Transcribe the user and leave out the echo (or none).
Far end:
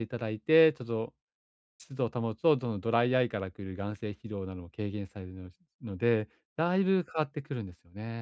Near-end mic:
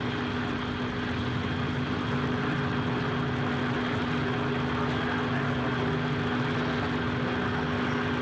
none